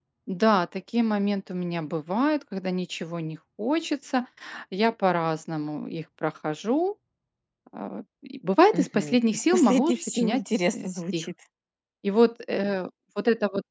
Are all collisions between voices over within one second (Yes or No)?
No